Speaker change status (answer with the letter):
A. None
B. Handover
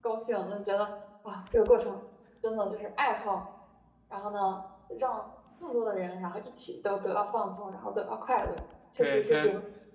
B